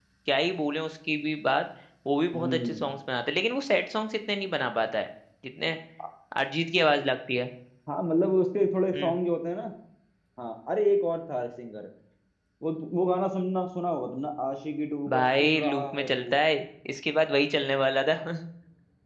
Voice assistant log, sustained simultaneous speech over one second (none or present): present